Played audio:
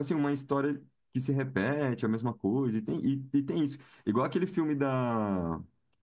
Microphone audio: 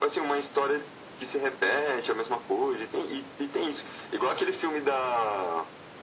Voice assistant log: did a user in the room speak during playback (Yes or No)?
No